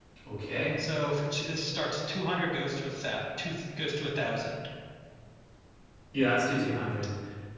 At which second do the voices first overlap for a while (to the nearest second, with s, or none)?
none